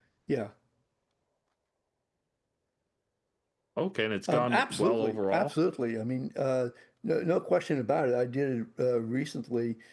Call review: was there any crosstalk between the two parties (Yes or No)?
Yes